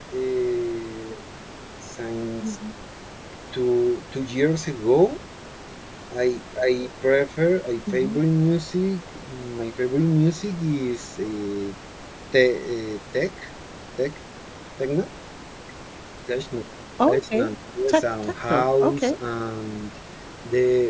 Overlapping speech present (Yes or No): Yes